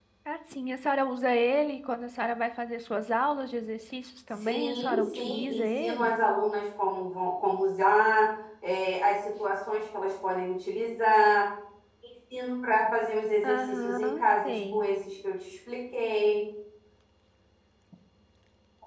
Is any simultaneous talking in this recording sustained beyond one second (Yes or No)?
Yes